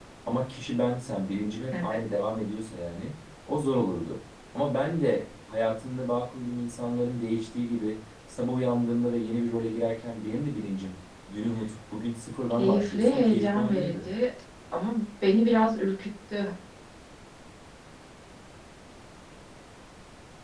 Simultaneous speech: Yes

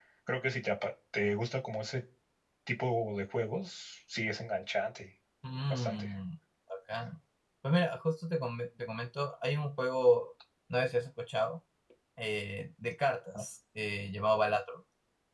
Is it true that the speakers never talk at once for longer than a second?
Yes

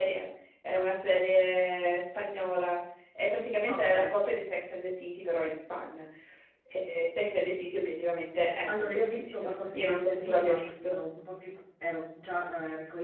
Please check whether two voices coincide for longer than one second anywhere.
Yes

